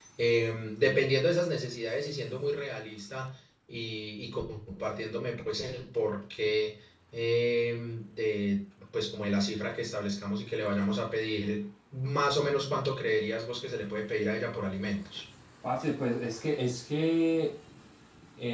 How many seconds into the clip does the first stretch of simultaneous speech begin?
none

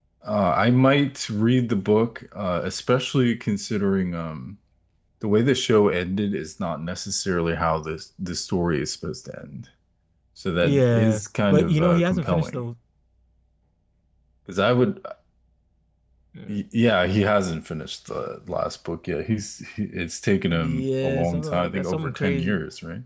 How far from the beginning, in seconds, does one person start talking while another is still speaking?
10.6 s

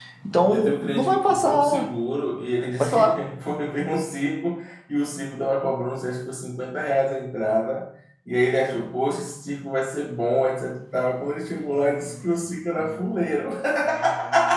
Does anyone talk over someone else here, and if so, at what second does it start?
0.5 s

